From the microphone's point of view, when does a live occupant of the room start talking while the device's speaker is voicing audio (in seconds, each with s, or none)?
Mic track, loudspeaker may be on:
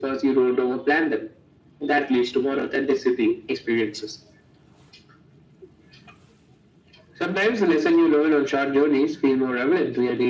none